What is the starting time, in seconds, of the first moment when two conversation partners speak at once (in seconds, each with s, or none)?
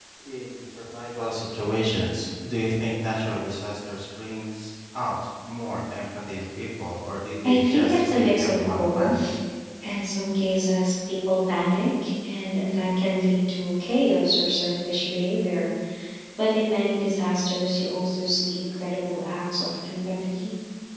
7.4 s